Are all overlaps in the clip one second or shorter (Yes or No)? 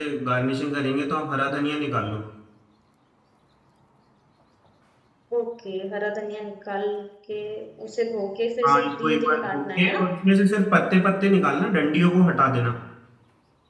No